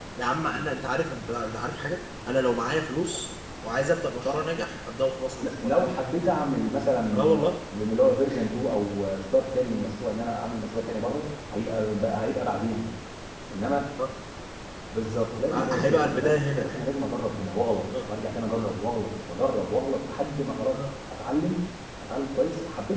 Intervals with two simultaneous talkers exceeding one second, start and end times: 15.5-16.8

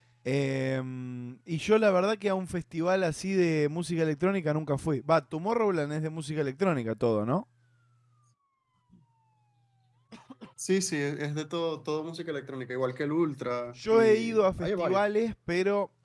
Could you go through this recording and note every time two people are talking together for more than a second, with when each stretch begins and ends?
13.8-15.0

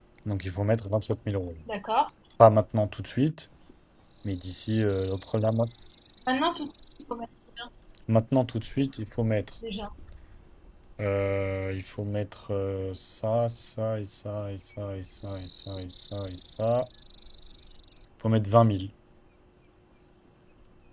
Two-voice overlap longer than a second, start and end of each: none

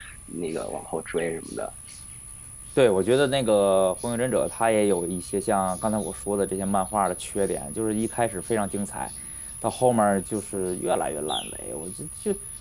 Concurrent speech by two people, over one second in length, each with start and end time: none

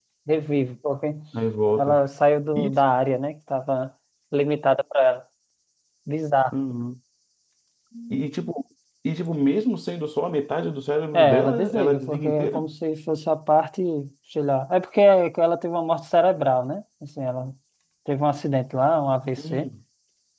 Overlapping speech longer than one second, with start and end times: 11.1-12.7

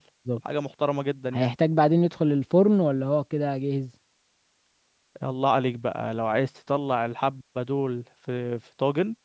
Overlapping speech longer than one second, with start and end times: none

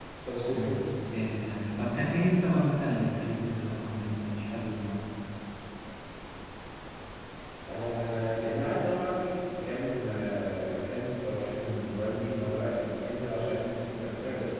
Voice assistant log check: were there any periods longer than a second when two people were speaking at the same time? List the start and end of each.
none

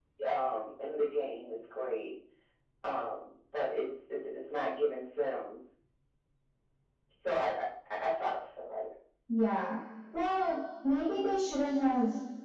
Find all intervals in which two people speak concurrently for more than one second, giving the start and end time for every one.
none

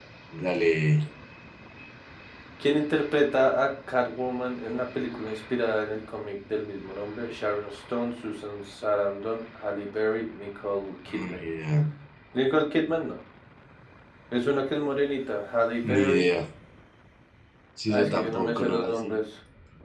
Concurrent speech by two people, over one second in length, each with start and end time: 17.9-19.2

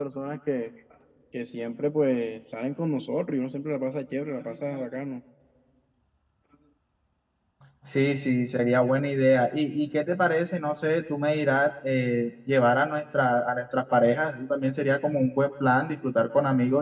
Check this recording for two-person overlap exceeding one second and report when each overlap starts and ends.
none

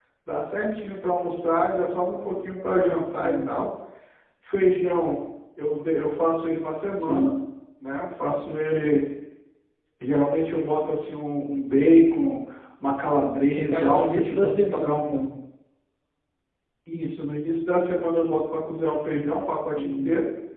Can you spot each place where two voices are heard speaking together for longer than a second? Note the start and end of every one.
13.6-15.3

